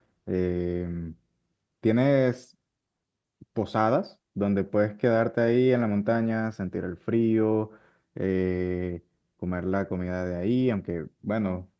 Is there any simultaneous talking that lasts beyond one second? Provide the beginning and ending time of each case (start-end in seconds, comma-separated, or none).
none